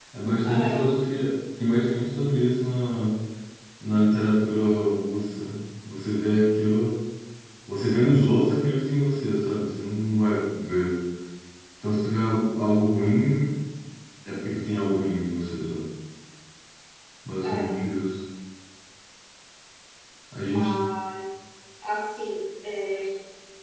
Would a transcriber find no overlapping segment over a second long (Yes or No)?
Yes